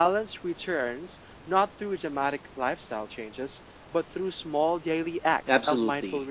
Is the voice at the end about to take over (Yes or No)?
Yes